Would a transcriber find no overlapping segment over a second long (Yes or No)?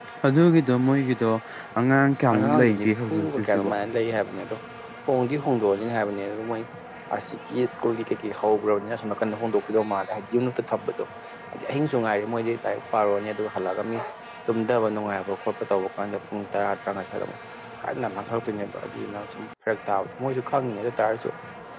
No